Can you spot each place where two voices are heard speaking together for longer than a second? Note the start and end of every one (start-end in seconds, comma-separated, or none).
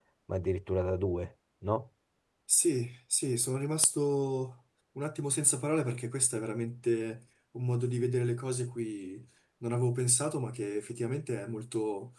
none